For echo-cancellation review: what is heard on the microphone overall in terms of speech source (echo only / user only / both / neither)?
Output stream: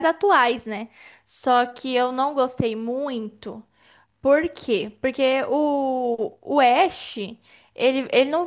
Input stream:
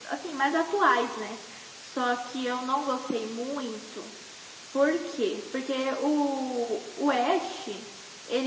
echo only